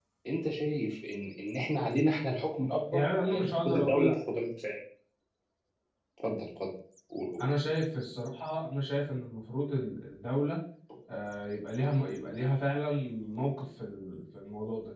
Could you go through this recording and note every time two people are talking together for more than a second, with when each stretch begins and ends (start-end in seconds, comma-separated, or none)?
2.9-4.2